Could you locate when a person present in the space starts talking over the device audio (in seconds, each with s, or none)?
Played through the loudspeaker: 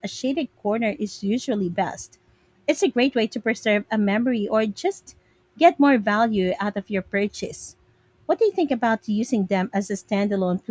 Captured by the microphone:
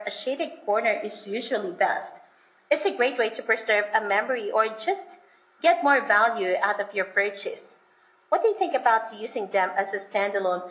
none